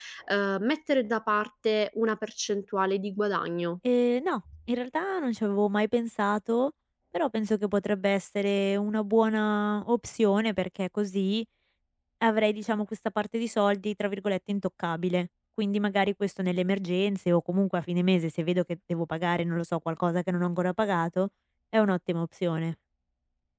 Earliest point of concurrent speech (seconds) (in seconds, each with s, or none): none